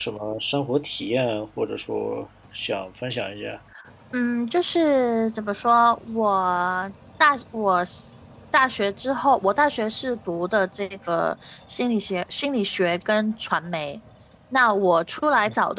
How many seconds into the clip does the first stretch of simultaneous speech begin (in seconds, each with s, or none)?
none